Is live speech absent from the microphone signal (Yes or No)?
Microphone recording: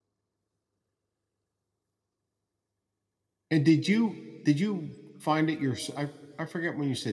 No